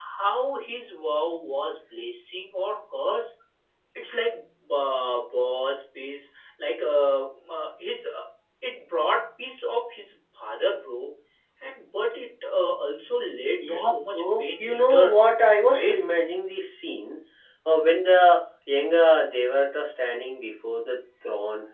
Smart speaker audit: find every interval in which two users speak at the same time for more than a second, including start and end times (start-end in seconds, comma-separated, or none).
13.6-15.2